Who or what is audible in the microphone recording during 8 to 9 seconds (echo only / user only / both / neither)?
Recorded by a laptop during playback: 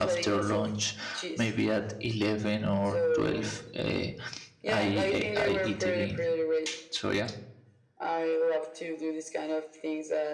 echo only